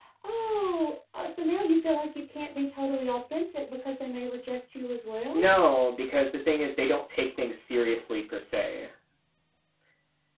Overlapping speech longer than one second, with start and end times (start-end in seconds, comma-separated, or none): none